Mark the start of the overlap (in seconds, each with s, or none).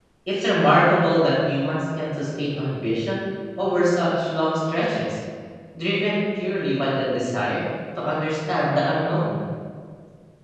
none